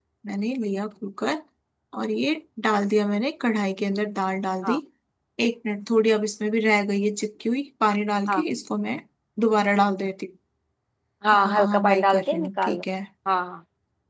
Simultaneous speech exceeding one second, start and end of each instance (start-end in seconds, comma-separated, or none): 11.3-12.8